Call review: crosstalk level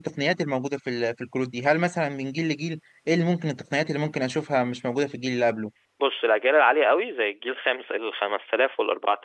none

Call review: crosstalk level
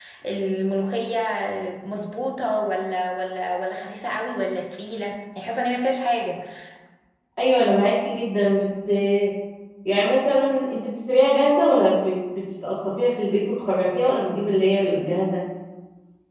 none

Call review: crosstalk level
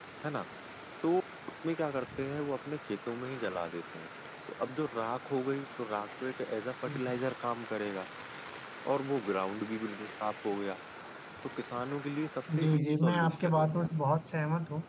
present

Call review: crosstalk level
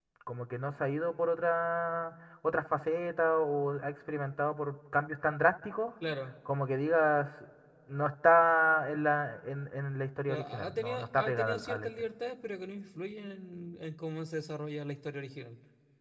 present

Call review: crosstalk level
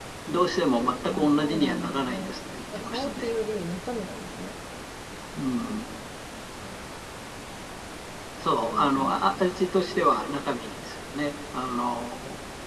present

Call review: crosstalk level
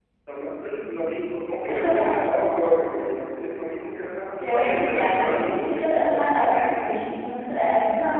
present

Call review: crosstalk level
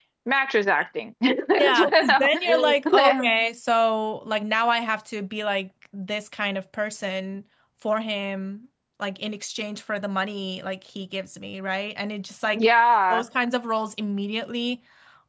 present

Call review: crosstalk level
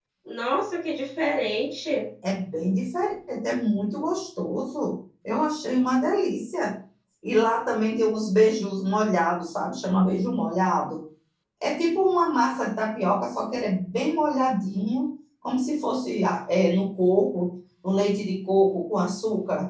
none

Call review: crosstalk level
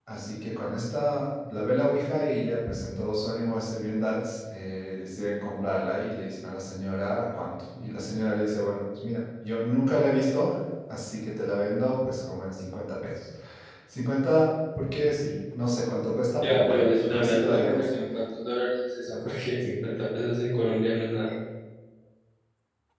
present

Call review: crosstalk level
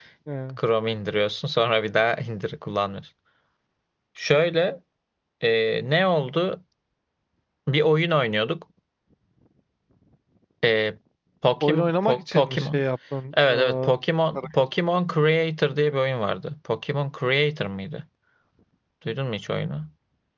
present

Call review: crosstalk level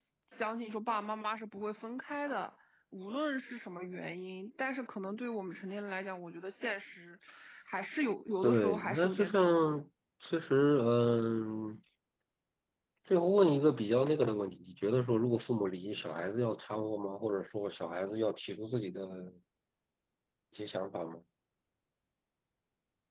present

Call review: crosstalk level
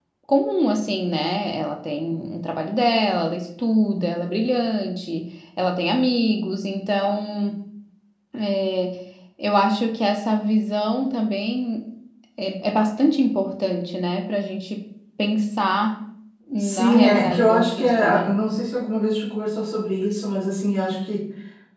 present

